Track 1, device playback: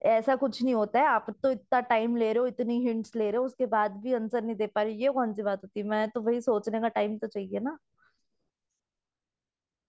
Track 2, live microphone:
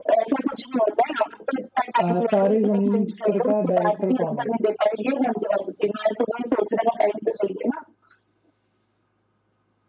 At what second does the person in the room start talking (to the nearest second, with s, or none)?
2 s